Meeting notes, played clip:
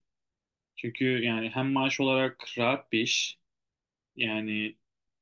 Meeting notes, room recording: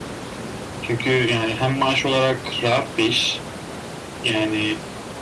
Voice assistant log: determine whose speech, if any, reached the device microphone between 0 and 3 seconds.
echo only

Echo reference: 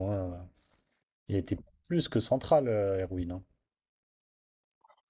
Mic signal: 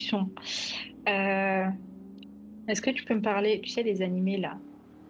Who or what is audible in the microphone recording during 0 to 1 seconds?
user only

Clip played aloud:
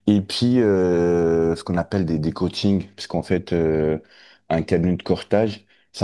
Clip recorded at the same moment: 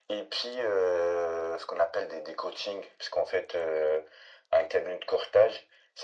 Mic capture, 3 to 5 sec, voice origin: echo only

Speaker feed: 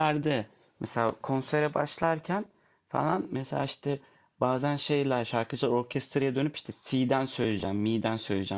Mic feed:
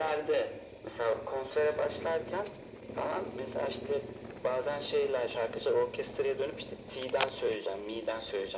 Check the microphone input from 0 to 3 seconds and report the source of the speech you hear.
echo only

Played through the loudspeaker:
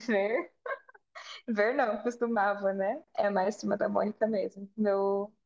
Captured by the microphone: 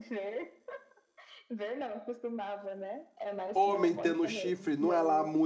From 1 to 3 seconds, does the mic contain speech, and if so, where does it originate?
echo only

